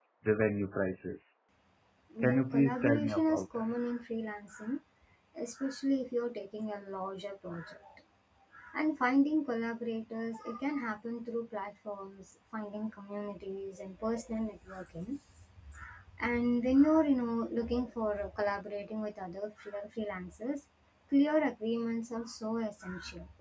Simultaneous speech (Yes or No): Yes